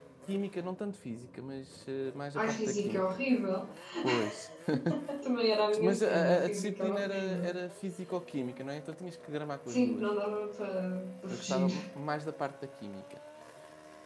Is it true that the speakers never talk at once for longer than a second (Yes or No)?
No